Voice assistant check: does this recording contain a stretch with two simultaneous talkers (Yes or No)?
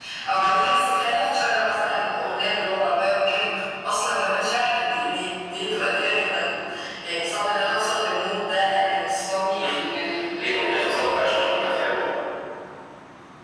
Yes